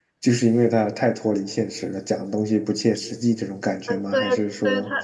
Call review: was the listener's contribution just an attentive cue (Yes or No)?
No